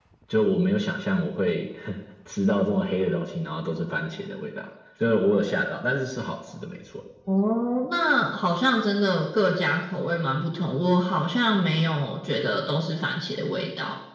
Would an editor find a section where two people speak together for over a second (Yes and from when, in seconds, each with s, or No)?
No